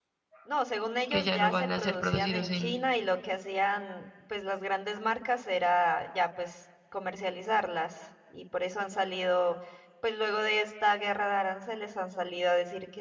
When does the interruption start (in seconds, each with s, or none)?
1.1 s